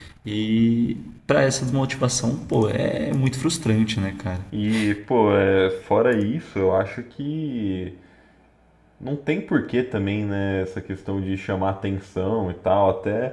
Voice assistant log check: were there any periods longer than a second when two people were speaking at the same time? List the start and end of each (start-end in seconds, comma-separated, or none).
none